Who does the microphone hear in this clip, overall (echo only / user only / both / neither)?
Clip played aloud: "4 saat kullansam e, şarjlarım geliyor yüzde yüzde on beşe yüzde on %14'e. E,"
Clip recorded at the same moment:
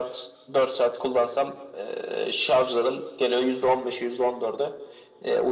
echo only